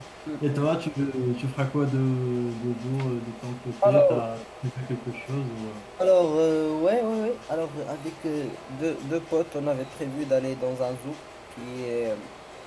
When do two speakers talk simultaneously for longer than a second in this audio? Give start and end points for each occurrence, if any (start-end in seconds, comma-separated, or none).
none